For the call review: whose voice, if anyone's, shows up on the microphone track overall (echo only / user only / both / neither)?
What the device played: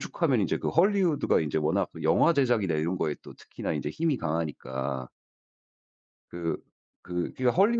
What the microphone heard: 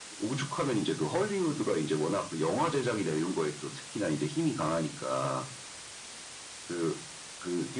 echo only